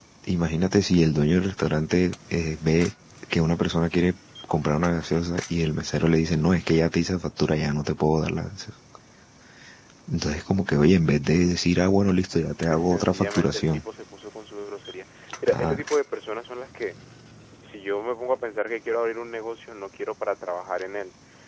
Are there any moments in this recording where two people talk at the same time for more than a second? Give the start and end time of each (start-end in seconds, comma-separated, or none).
12.6-13.8